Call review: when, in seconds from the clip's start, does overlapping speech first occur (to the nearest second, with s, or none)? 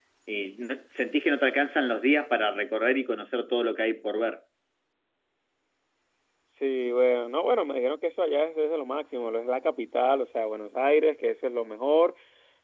none